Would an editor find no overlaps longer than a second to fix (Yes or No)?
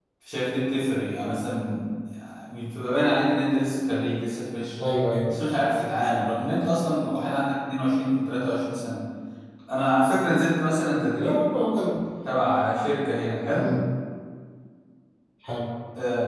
Yes